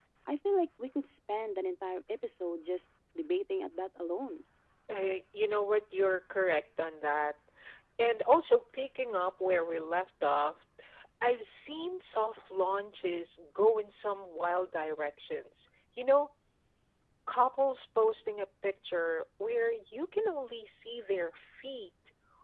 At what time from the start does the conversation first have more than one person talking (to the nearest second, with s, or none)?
none